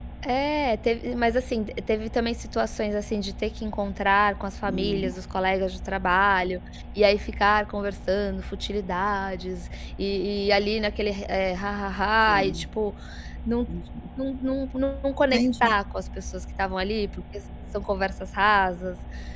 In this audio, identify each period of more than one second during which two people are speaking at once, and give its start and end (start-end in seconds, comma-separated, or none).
none